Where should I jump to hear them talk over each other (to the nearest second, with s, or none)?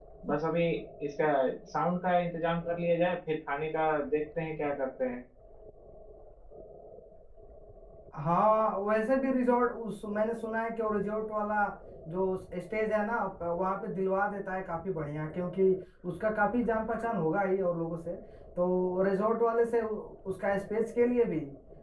none